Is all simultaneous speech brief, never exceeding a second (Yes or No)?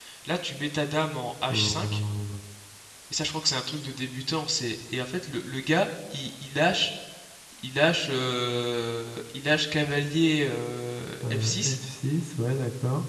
Yes